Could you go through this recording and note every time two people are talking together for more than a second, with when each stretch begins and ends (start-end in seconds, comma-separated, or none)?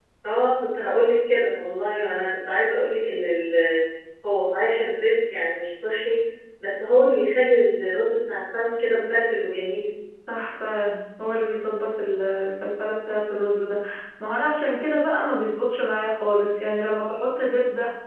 none